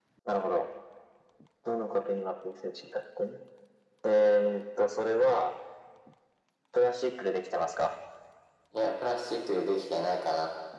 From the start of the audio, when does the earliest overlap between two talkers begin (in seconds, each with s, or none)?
none